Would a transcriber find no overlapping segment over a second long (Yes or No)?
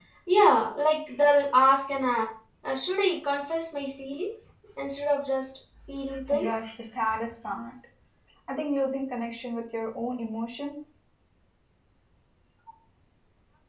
Yes